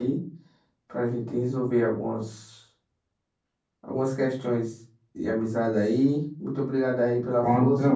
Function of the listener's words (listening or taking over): taking over